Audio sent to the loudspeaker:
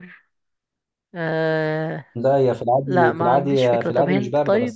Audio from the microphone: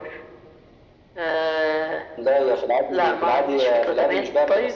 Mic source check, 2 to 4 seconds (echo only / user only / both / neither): echo only